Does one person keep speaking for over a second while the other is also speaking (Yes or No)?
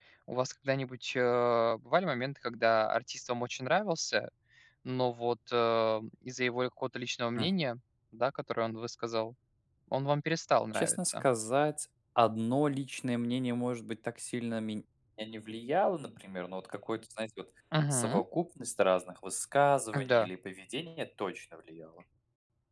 No